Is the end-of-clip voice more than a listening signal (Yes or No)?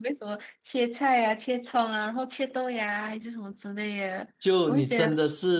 Yes